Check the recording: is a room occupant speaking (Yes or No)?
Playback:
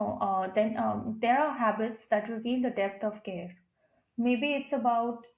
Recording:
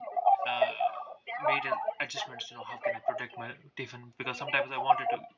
Yes